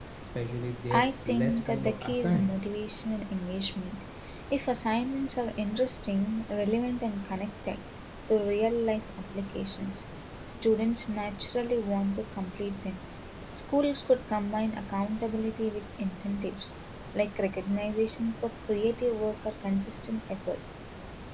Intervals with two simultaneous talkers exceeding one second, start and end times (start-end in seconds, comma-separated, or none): 0.9-2.5